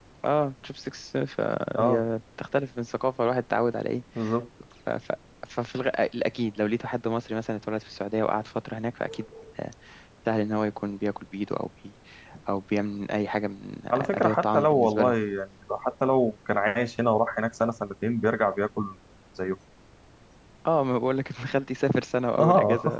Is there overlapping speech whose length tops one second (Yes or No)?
Yes